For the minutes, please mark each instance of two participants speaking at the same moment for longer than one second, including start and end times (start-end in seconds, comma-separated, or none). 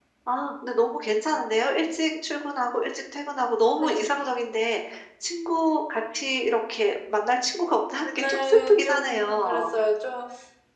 8.2-9.7